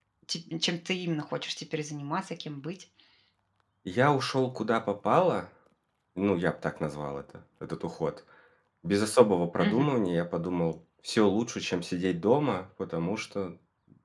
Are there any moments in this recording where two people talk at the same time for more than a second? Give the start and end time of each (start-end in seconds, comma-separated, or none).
none